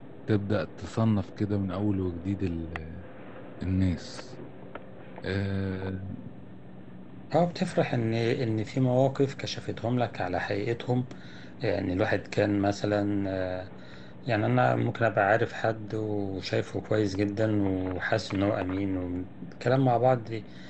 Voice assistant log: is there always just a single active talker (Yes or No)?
Yes